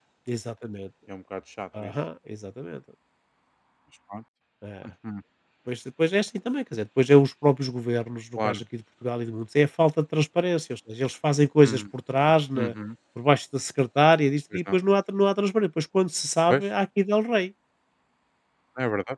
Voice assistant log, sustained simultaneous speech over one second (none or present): none